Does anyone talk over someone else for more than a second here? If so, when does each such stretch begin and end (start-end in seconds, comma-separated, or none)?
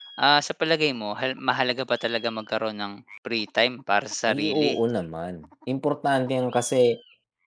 none